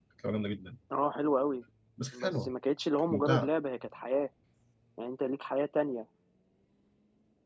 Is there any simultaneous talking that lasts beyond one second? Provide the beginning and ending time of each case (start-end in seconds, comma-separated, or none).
none